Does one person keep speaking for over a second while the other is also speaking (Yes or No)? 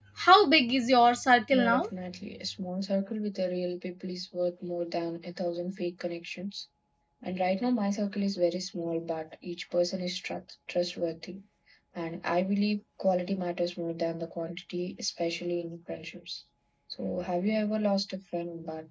No